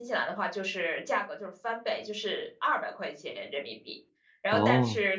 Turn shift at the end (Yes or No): No